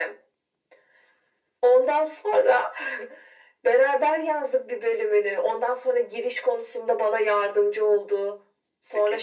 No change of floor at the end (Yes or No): No